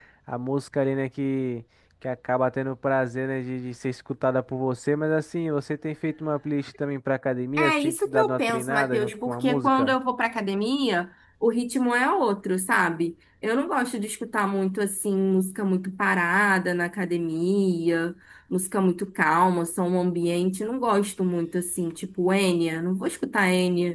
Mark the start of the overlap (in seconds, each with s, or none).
7.6 s